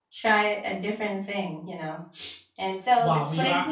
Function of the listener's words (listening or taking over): taking over